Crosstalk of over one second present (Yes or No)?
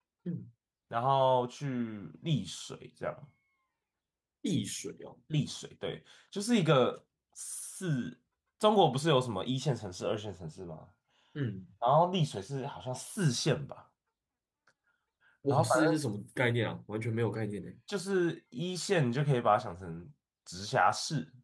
No